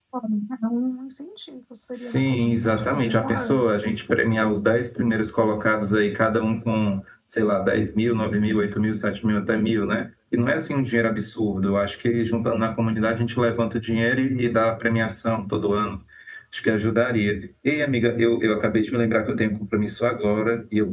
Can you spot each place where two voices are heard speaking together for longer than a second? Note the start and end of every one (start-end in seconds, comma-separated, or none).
2.0-3.6